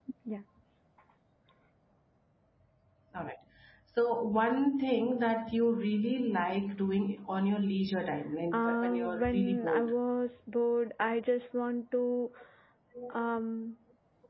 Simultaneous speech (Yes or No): Yes